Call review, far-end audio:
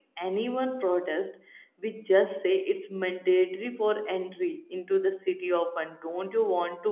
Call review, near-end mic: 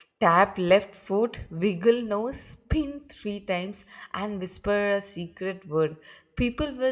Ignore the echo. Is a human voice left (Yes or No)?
Yes